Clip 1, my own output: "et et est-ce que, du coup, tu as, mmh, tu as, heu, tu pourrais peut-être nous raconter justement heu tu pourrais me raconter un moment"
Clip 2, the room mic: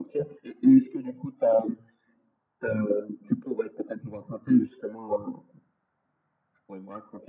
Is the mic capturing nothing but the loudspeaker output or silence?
Yes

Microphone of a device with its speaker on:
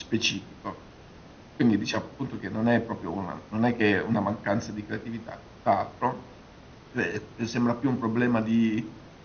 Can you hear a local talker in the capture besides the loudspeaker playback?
Yes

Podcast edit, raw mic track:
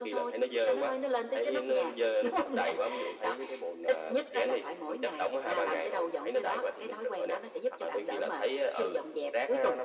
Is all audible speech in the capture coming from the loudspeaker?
Yes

